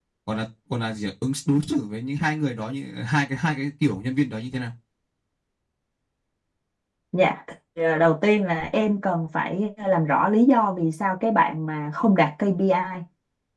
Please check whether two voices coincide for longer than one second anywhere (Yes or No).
No